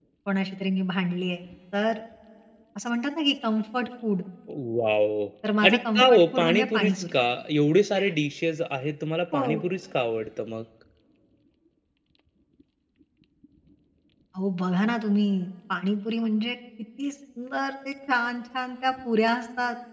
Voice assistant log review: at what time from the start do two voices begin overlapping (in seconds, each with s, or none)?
5.6 s